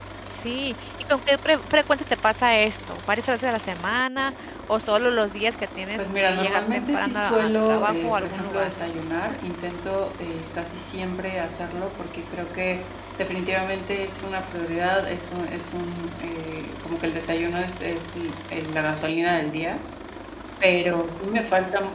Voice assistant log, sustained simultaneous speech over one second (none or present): present